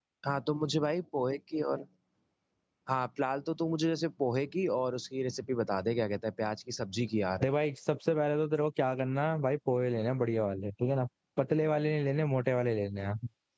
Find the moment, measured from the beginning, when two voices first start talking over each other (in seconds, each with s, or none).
none